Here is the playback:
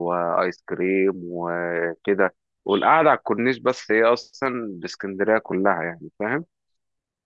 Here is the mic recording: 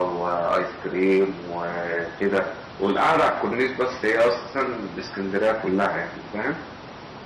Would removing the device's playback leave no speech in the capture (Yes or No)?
Yes